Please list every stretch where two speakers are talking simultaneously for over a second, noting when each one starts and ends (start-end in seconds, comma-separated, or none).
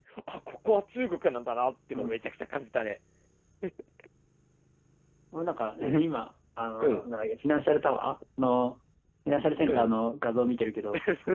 none